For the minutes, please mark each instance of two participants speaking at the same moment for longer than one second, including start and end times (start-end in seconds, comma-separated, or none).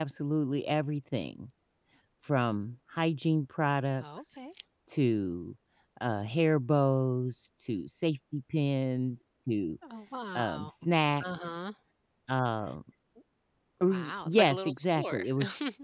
13.9-15.2